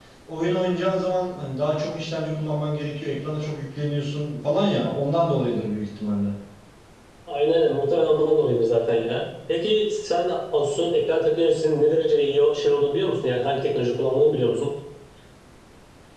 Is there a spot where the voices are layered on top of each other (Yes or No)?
No